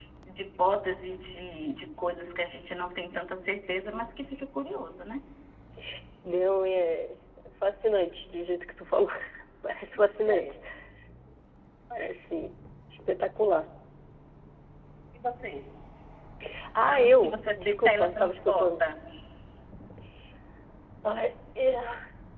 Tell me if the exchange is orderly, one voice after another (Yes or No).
No